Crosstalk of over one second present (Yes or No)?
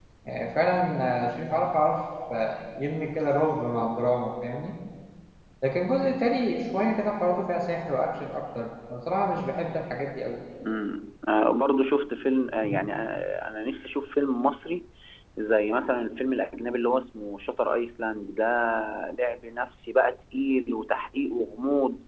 No